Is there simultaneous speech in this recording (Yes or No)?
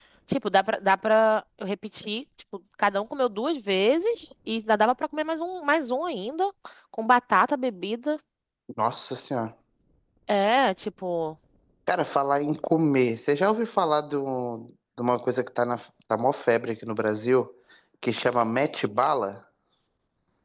No